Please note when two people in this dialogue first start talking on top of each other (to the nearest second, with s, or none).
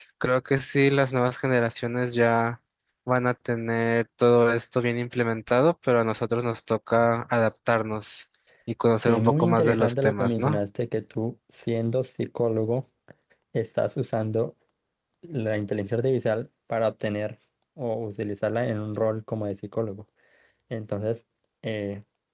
9 s